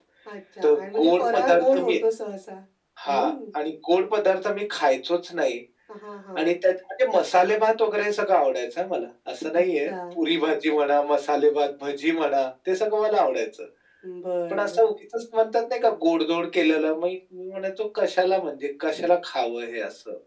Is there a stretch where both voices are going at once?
Yes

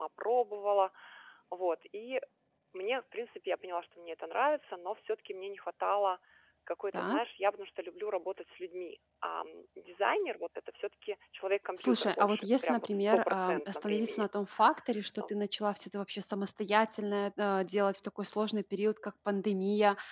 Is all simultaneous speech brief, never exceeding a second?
No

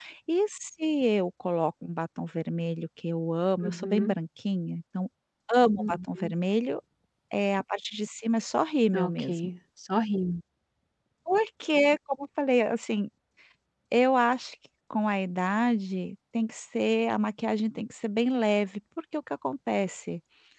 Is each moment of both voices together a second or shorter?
Yes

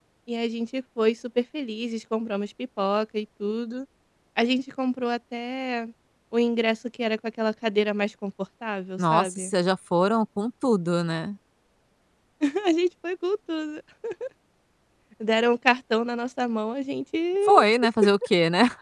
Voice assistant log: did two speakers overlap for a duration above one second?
No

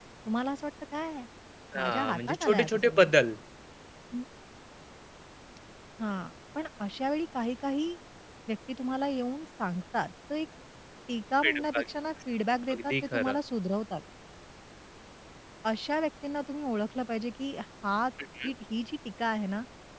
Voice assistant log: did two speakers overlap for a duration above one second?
Yes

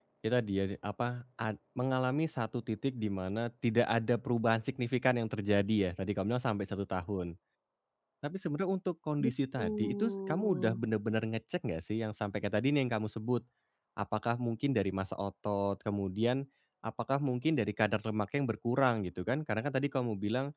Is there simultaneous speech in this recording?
Yes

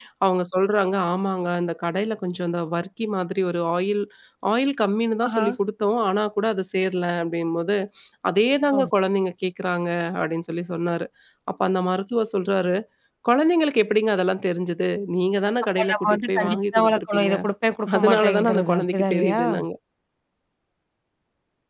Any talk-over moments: Yes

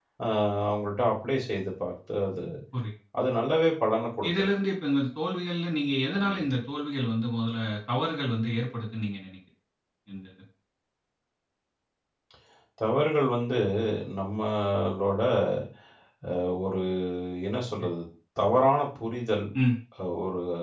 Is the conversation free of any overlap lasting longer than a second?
Yes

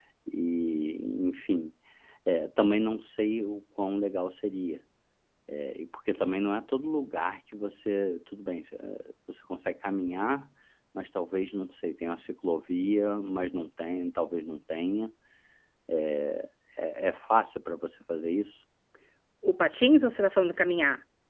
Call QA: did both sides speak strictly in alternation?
Yes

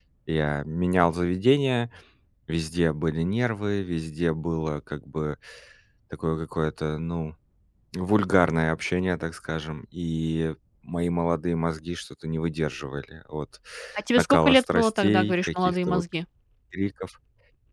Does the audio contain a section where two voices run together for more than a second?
Yes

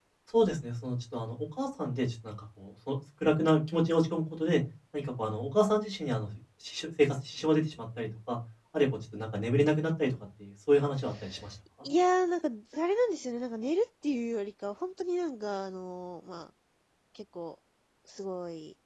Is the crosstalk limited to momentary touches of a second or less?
Yes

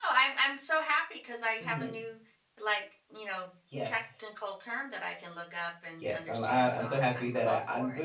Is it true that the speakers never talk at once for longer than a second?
No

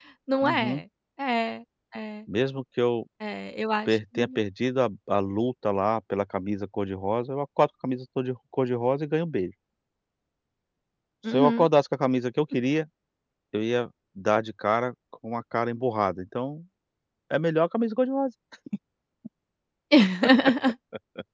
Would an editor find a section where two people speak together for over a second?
No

